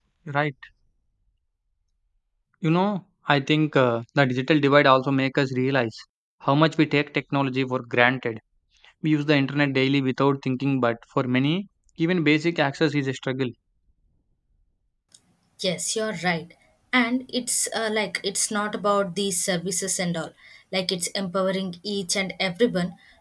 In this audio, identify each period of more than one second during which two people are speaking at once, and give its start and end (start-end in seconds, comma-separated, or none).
none